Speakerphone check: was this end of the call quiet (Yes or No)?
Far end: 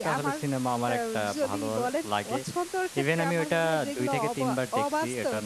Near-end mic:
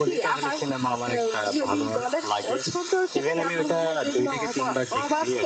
Yes